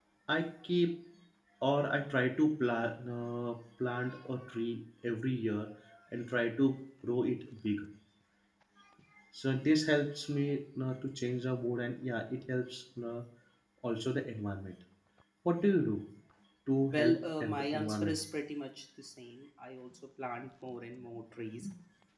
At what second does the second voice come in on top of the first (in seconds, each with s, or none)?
16.9 s